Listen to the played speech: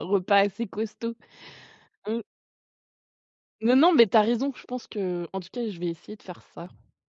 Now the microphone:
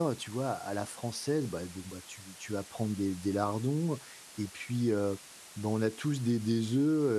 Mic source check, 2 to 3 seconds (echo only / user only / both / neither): user only